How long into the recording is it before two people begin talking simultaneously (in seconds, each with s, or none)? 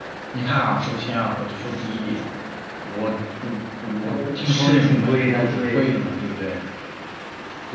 4.0 s